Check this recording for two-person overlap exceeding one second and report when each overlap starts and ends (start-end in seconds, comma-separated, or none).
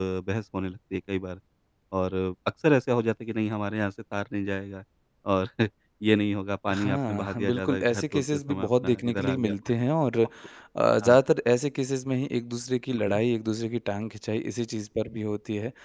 6.7-9.5